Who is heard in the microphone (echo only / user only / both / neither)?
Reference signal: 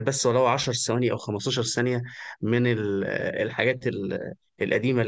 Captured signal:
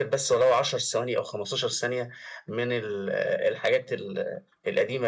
echo only